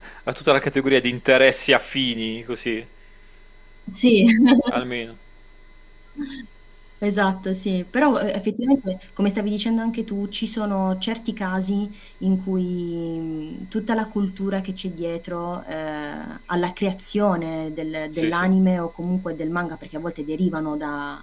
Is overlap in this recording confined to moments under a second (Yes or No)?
Yes